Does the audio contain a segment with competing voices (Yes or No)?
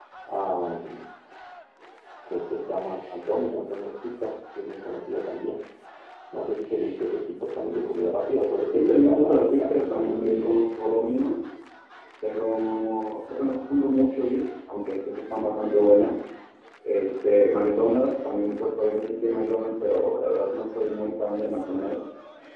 Yes